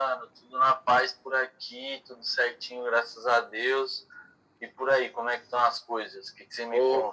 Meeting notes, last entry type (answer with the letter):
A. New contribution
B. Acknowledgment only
A